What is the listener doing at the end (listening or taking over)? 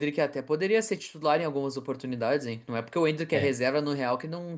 listening